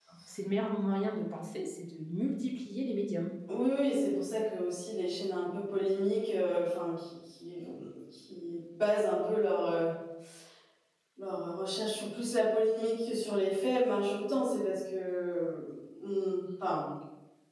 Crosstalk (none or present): none